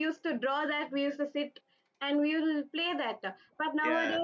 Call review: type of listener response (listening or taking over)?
listening